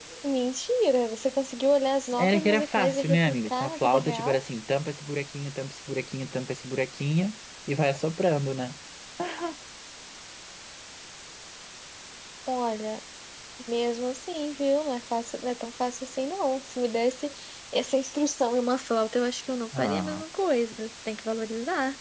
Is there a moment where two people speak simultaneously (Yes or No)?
Yes